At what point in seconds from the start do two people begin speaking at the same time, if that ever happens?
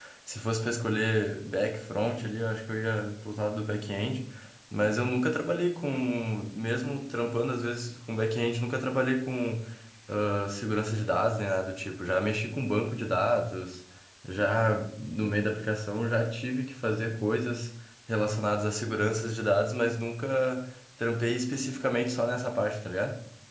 none

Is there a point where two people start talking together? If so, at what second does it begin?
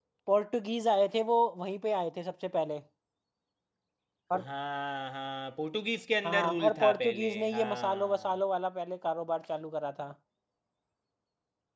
6.2 s

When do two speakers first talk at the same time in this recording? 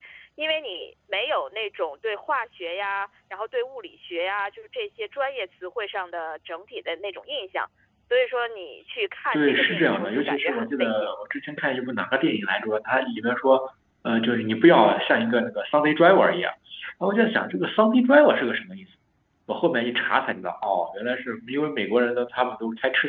9.3 s

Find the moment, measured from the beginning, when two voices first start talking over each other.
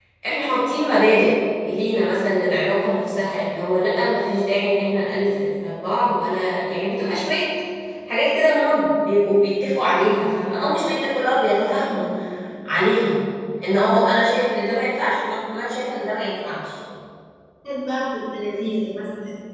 none

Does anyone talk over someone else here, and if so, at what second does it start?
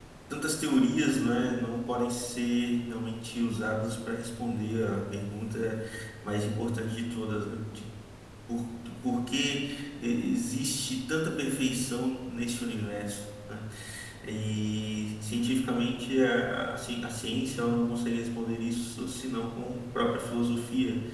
none

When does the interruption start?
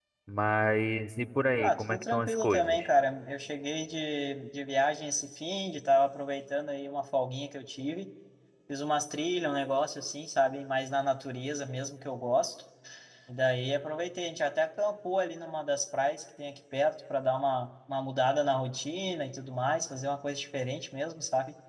1.6 s

